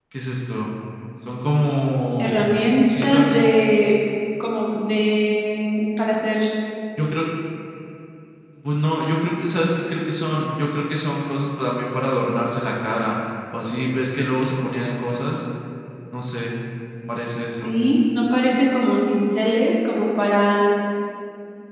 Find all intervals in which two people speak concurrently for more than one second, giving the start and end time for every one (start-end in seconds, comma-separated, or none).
2.2-3.5